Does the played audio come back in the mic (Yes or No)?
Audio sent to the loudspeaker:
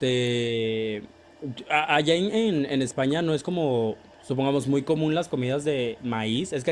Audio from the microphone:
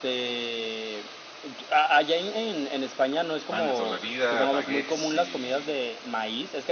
Yes